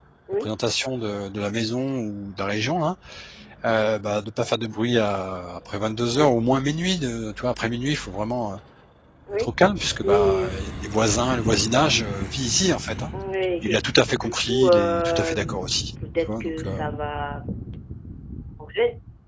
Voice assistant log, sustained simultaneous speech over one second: present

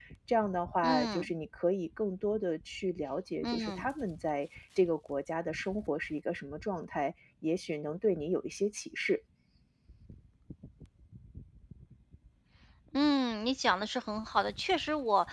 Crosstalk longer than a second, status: none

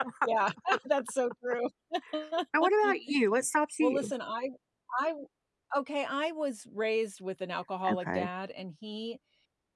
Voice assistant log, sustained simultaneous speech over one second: none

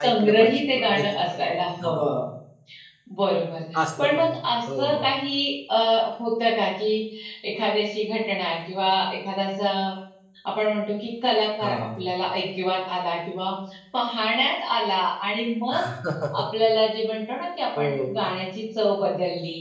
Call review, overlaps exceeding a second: present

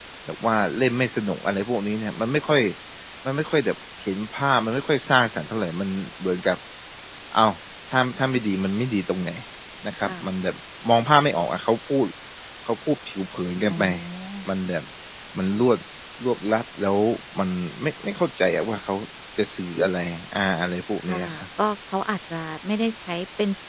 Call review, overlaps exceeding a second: none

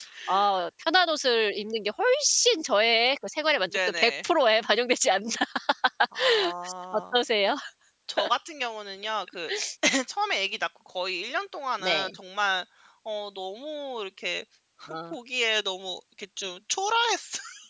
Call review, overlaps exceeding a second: none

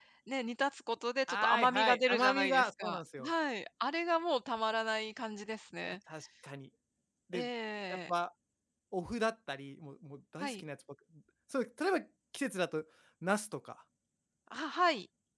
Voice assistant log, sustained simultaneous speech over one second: present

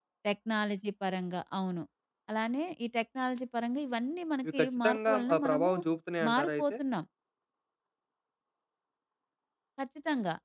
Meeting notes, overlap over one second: present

